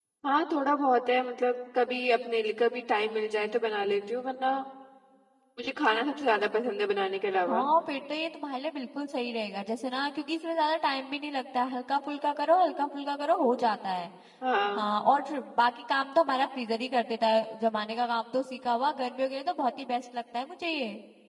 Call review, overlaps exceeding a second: none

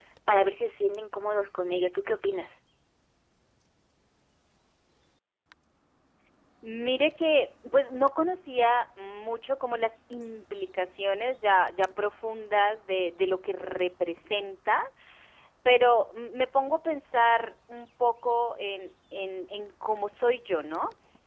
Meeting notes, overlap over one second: none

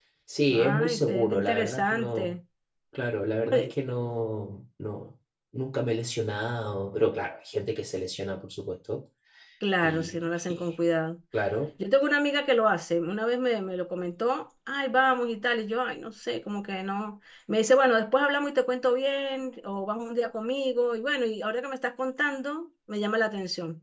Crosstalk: present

